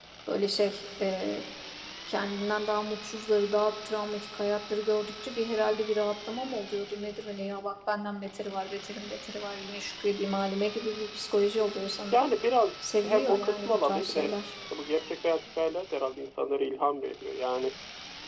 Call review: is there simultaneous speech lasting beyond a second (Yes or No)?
Yes